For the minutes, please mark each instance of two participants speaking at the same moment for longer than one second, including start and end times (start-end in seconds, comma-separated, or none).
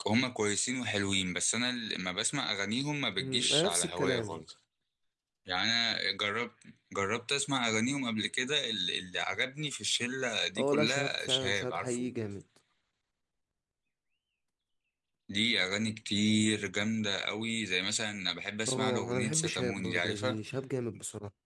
3.2-4.4, 10.6-12.1, 18.7-20.4